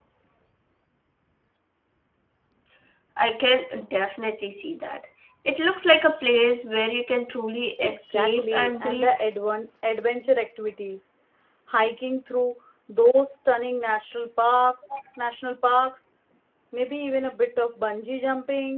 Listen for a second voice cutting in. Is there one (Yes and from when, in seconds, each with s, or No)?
Yes, from 7.8 s